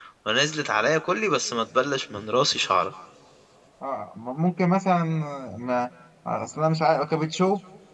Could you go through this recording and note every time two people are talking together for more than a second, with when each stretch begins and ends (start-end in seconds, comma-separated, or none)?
none